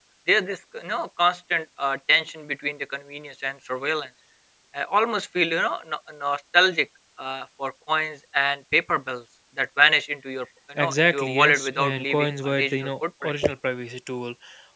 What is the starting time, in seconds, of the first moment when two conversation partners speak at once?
11 s

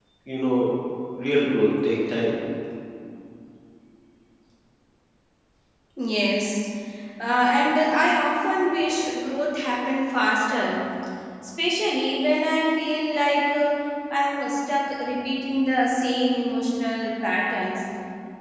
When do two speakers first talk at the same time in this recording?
none

